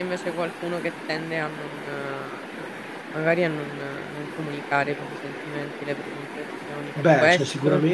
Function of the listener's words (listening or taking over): taking over